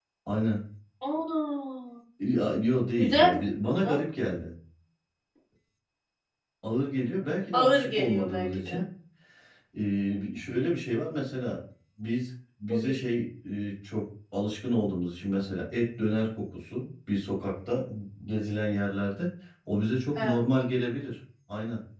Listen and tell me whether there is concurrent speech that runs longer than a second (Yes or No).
Yes